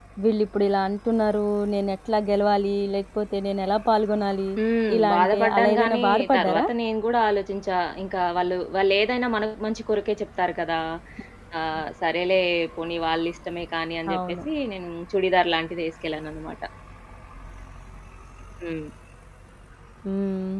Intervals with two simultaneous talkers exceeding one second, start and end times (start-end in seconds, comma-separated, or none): 5.0-6.6